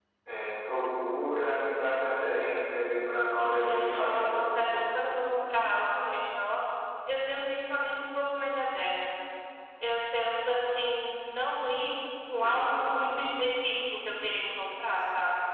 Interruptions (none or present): present